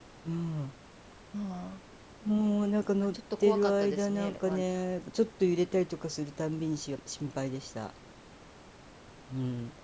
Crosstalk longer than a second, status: present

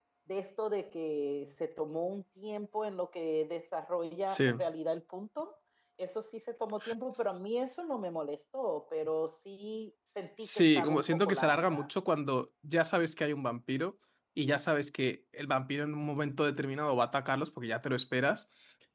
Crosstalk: present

